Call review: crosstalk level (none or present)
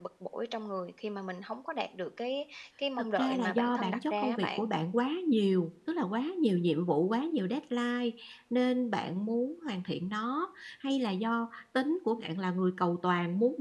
present